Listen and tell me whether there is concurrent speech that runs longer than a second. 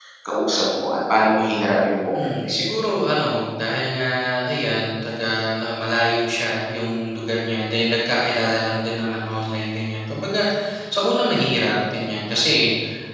No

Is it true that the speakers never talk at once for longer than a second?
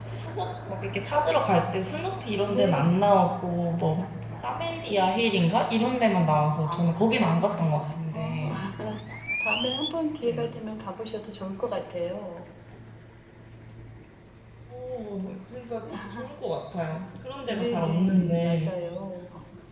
No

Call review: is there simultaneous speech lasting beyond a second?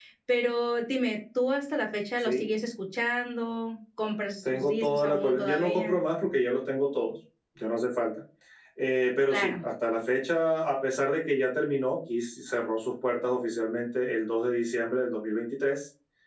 Yes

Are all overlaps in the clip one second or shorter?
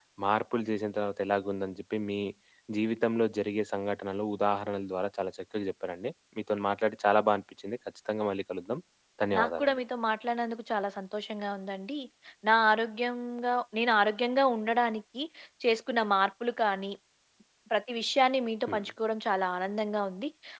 Yes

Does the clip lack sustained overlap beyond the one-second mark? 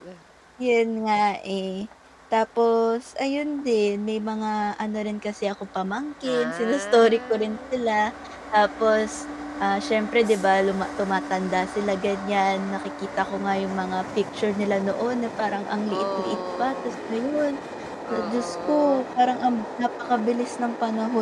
No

